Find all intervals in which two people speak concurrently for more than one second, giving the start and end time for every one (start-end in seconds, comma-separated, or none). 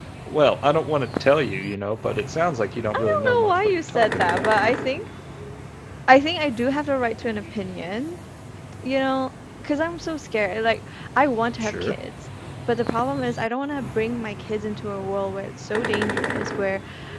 2.9-4.5